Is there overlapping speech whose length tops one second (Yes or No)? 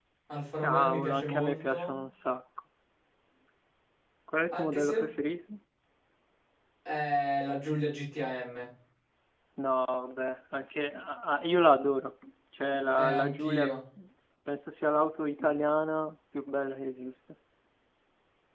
Yes